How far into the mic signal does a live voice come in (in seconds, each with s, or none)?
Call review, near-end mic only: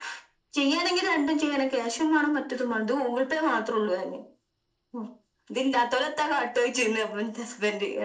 none